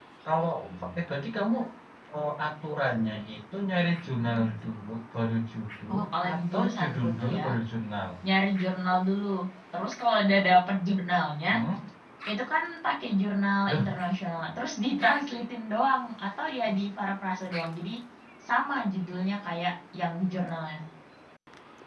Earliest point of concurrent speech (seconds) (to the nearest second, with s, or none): 6 s